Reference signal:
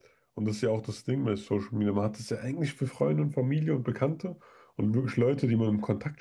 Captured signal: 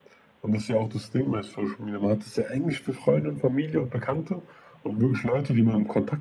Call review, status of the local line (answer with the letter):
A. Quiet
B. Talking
A